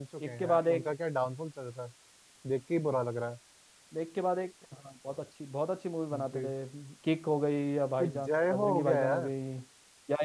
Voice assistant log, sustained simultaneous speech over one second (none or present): present